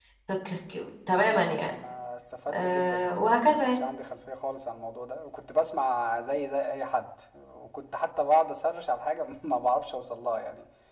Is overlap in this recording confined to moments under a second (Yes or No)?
No